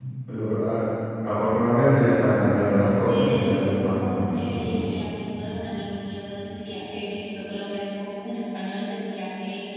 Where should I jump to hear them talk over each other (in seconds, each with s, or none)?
3.0 s